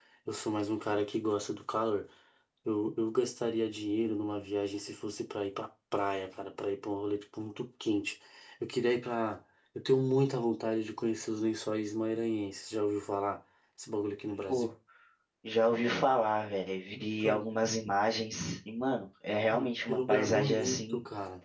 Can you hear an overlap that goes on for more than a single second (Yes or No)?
Yes